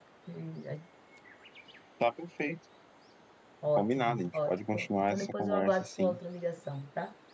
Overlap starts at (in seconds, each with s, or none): 3.7 s